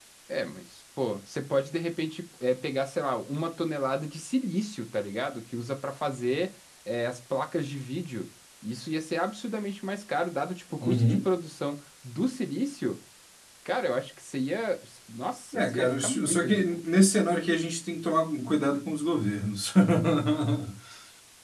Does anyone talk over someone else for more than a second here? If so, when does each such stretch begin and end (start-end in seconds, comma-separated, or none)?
15.5-16.8